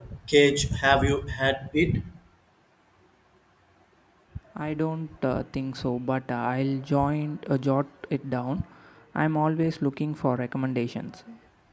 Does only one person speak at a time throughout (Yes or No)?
Yes